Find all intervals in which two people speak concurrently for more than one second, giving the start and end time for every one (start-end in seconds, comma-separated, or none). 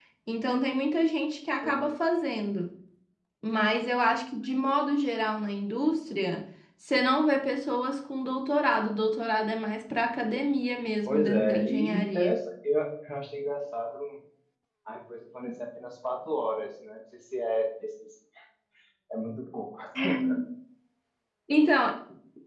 11.1-12.4